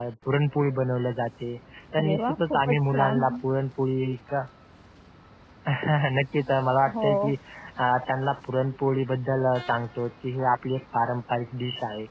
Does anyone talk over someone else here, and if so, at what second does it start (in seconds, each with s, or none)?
2.0 s